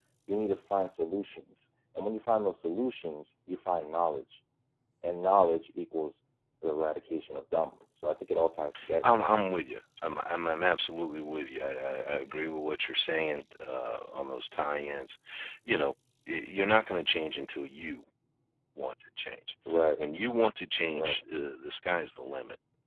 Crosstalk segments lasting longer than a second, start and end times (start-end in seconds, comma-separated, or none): none